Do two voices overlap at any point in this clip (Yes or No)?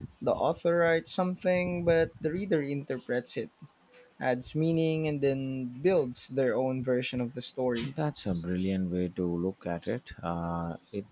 No